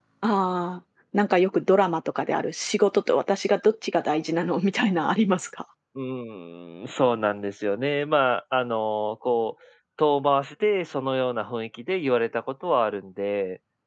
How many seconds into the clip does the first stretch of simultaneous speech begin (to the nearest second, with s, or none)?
none